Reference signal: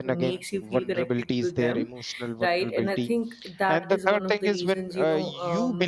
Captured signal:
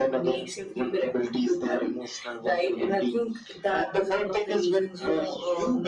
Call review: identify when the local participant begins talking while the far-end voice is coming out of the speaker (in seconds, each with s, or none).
none